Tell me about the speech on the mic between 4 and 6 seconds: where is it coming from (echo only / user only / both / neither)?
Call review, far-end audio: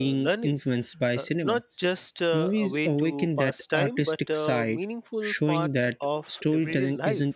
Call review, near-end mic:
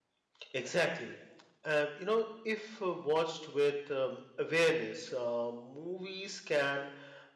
user only